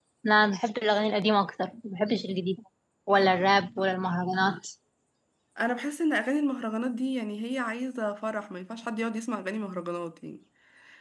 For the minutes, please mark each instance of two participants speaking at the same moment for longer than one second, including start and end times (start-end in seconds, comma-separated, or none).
none